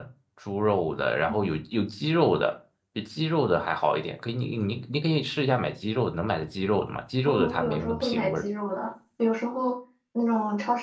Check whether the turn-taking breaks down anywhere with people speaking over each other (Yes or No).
Yes